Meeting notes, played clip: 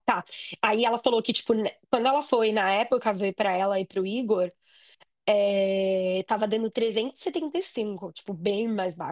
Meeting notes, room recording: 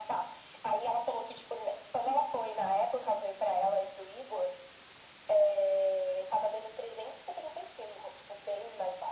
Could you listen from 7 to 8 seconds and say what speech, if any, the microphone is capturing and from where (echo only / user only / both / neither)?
echo only